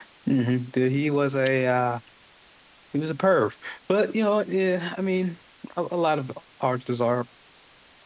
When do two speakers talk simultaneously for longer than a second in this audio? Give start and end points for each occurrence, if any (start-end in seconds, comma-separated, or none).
none